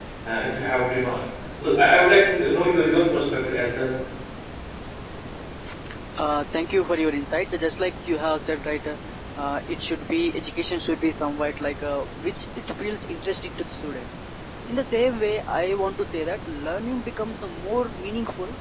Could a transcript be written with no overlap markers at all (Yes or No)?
Yes